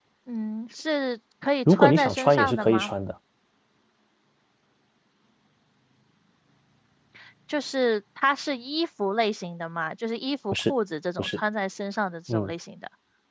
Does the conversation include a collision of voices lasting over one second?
Yes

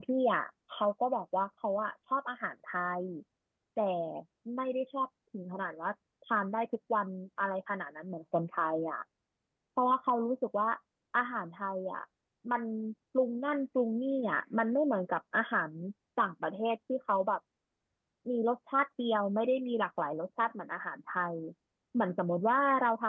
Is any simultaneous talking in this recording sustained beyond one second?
No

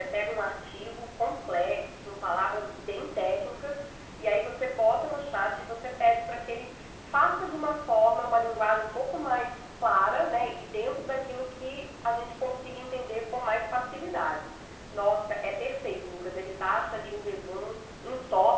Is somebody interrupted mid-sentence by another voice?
No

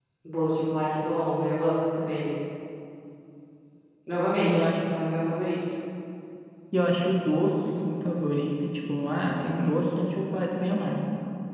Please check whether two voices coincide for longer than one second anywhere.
No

